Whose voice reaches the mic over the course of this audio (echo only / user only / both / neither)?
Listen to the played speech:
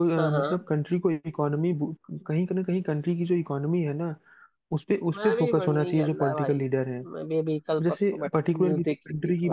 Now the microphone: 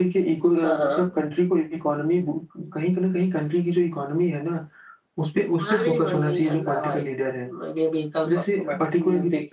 echo only